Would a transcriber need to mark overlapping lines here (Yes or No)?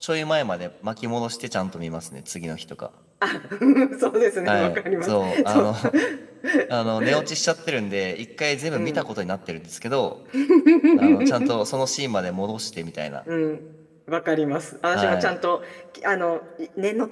Yes